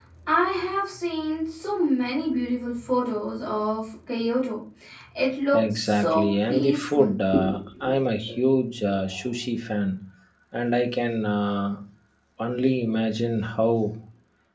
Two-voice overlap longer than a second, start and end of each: 5.5-7.1

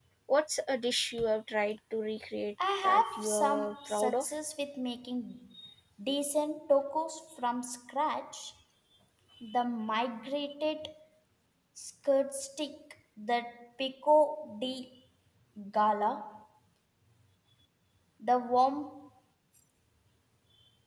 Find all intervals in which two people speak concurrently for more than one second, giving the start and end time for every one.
2.8-4.3

